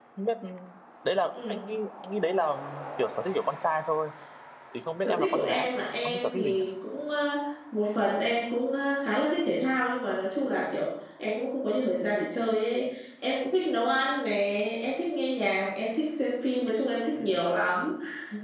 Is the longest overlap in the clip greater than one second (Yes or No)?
Yes